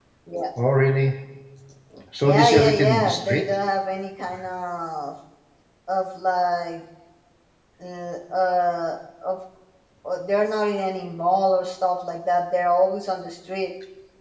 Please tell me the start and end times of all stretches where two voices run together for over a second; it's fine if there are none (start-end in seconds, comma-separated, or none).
2.2-3.5